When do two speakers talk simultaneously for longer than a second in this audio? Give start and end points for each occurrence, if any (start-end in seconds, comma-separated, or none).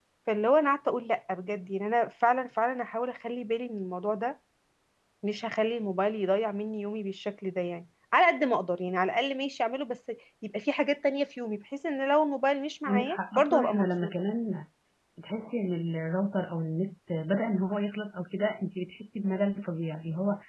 12.9-14.2